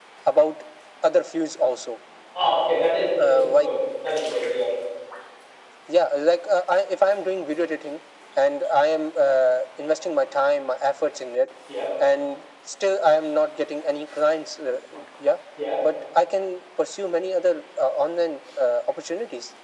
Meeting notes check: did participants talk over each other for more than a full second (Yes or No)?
No